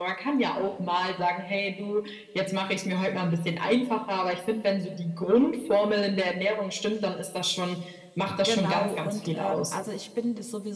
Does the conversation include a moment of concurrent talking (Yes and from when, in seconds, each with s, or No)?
Yes, from 8.3 s